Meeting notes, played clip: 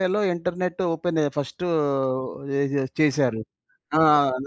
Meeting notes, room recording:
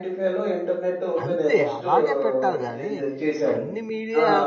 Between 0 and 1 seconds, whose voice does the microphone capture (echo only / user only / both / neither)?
echo only